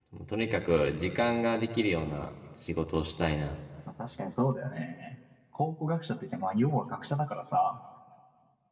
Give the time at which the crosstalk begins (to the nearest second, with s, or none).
none